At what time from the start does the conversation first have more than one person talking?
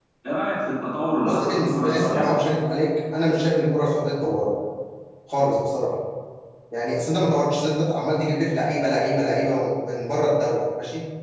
1 s

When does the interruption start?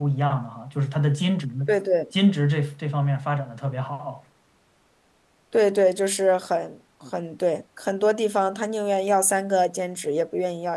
none

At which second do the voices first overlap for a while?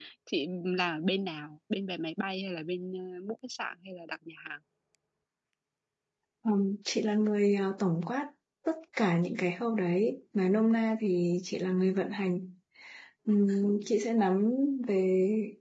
none

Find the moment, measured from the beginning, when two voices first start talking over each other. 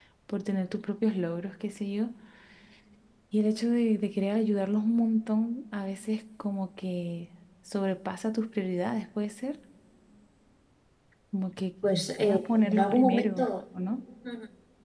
12 s

